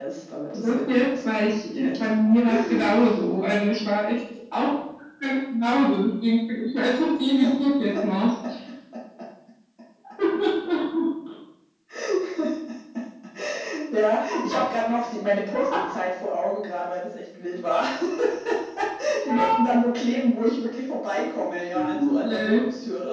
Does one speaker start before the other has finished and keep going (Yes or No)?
Yes